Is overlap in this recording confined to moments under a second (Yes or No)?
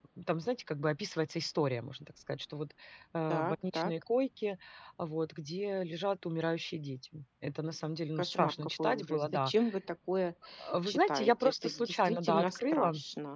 No